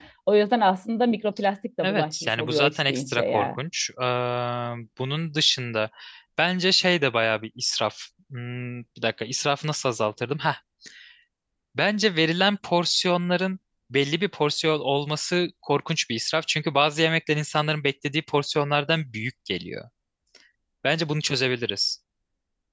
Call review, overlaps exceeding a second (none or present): present